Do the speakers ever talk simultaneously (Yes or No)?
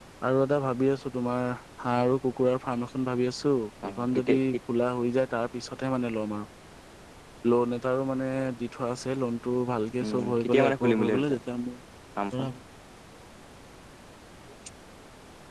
Yes